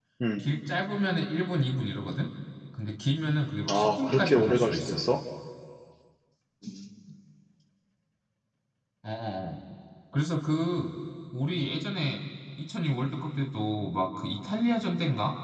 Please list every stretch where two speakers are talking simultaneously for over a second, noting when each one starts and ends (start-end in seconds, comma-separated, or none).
3.7-5.0